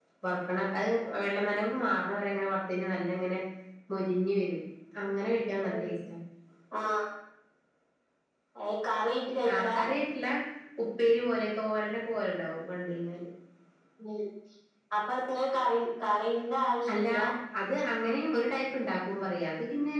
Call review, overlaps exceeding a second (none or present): none